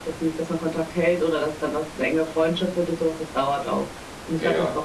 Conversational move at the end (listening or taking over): listening